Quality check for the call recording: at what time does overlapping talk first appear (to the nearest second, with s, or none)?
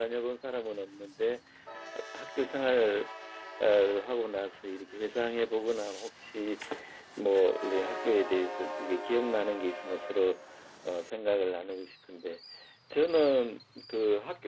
none